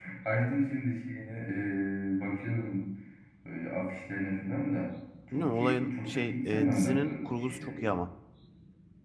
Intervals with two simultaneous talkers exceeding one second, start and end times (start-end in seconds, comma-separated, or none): 5.3-7.9